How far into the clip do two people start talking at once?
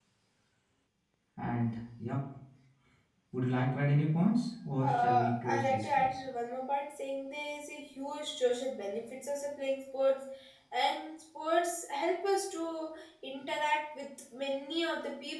5 s

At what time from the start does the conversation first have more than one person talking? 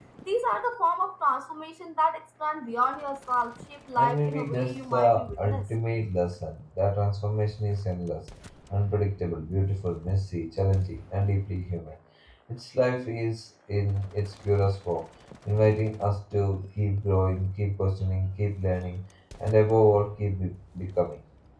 4 s

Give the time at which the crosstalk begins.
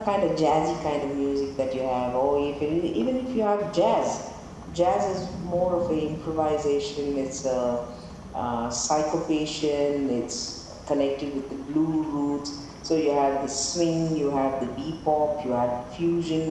none

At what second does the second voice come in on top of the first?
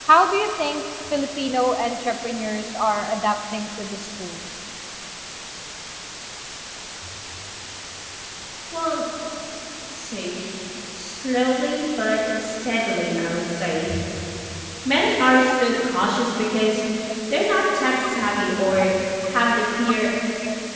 none

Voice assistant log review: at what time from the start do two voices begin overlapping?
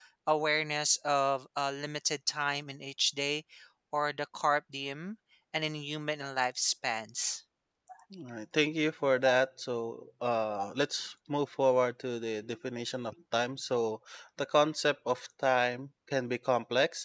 none

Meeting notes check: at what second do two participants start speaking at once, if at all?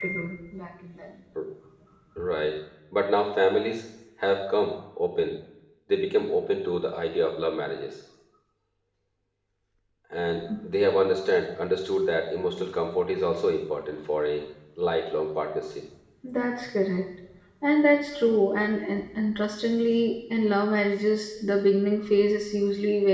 none

